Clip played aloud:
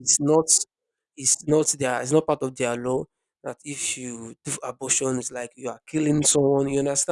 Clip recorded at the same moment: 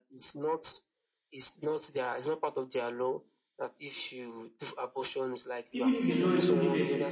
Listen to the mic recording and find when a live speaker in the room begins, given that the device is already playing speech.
6 s

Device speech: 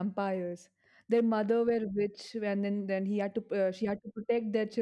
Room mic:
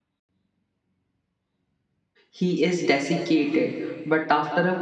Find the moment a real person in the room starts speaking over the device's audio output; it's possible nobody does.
2 s

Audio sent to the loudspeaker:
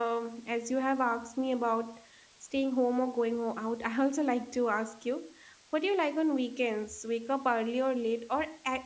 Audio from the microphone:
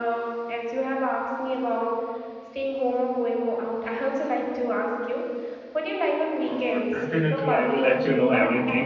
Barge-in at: 6 s

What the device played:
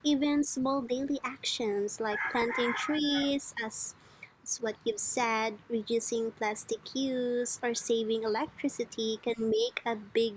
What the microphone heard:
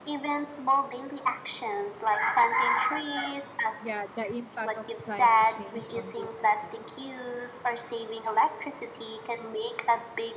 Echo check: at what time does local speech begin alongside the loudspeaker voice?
4 s

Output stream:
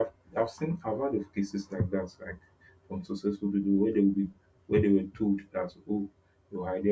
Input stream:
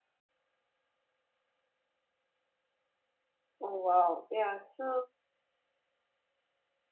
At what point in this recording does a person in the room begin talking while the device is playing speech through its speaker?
4 s

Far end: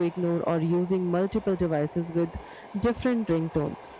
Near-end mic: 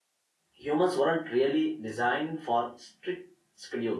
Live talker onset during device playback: 0 s

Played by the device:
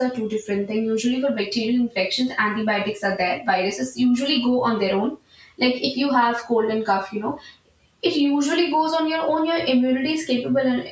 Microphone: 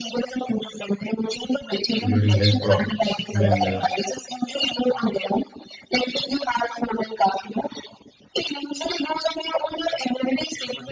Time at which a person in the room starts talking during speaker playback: 2 s

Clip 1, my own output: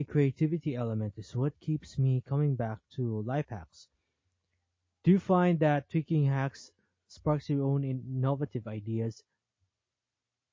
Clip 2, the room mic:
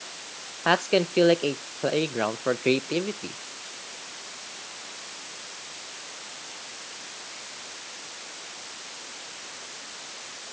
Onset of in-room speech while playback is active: 1 s

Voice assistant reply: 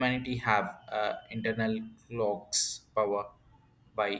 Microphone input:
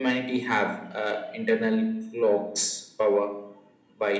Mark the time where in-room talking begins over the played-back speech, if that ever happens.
none

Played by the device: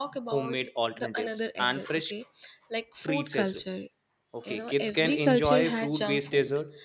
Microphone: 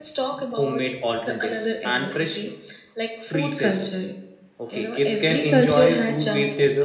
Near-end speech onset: none

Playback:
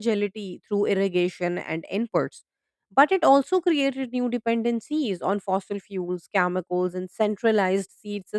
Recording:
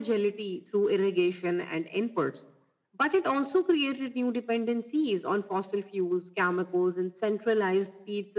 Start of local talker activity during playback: none

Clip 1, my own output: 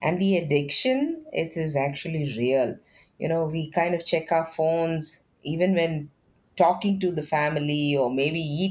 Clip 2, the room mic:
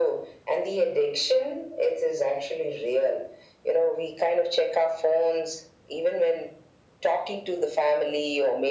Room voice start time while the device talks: none

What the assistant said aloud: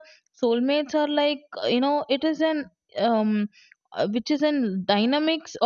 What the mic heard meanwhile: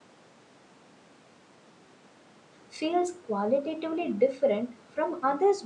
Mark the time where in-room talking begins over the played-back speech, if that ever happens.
3 s

